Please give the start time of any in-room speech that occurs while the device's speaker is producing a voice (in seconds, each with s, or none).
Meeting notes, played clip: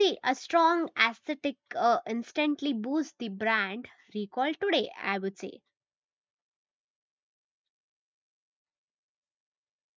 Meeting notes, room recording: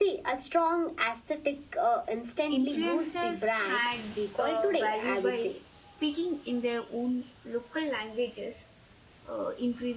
2.5 s